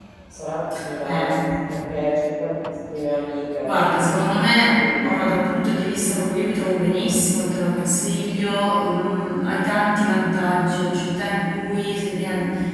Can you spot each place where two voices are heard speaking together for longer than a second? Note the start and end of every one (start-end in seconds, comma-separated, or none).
none